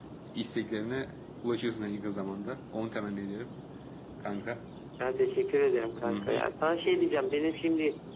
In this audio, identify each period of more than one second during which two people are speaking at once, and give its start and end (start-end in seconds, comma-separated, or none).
none